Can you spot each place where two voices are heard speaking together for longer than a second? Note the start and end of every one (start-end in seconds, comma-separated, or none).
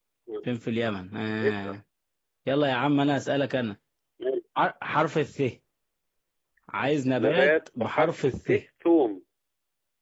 7.2-8.5